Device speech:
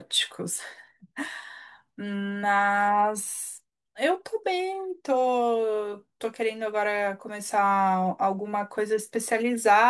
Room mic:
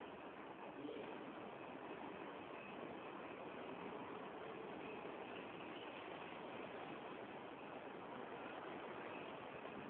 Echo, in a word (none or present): none